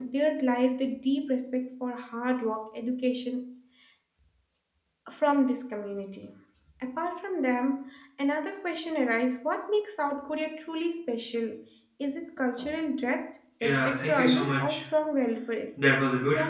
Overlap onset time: 13.6 s

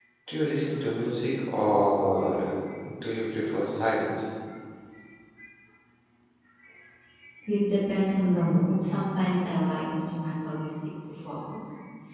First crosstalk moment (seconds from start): none

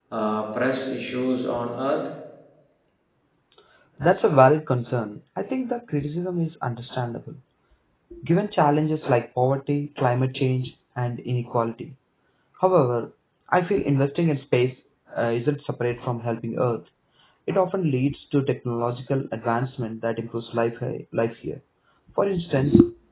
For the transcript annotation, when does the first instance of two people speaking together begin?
none

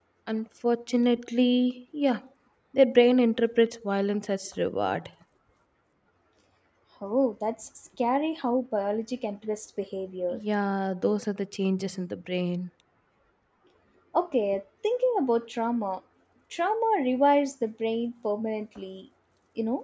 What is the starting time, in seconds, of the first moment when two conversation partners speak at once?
none

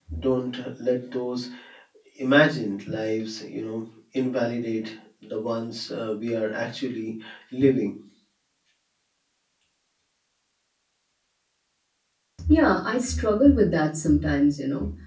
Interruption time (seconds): none

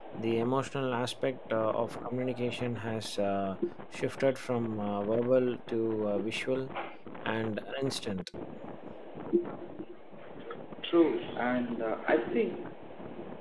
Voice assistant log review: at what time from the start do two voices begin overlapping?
none

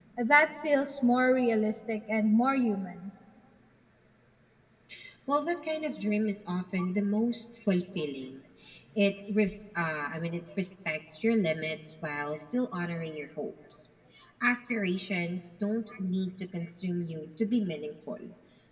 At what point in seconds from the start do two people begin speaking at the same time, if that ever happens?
none

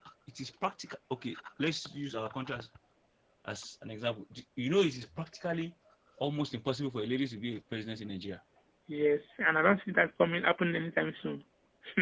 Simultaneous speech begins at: none

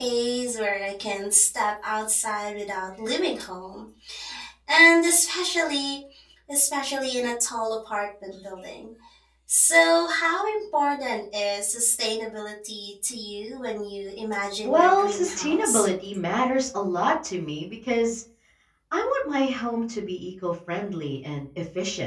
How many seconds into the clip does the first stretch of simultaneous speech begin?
14.6 s

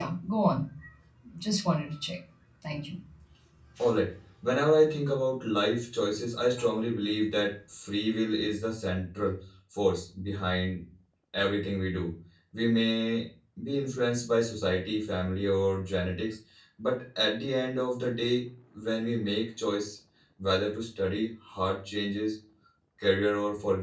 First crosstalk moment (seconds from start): none

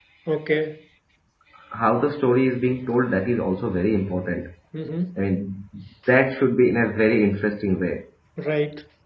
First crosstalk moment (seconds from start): none

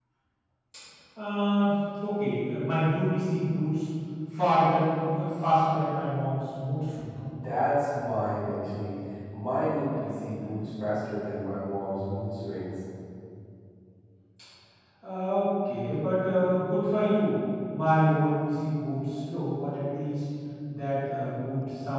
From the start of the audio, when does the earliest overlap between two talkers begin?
none

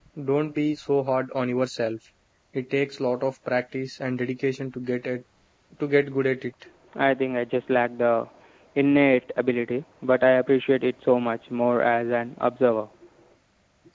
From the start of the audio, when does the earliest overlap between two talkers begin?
none

